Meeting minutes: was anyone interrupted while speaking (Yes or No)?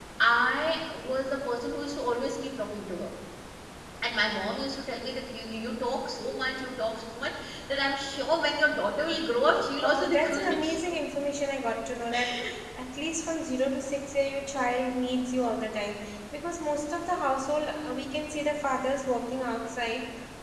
Yes